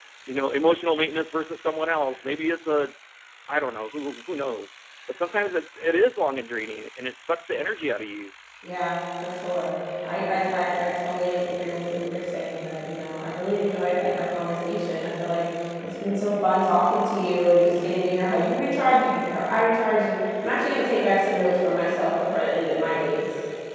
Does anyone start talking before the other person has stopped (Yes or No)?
No